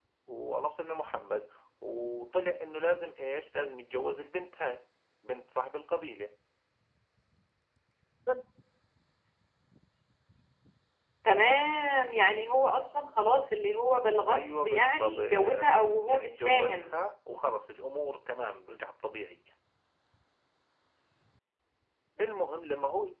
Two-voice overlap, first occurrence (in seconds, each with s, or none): 14.3 s